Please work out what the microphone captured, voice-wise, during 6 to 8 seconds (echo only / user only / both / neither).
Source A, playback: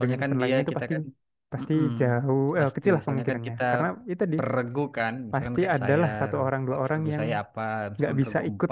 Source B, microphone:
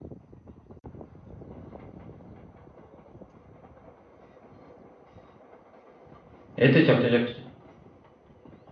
user only